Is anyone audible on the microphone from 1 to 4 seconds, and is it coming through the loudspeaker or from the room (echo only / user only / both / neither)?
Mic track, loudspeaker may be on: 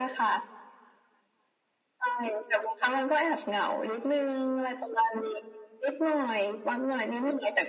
echo only